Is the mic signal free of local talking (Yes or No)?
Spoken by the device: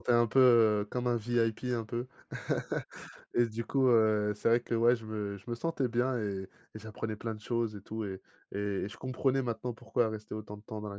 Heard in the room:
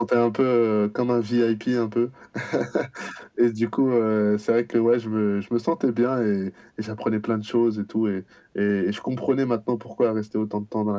Yes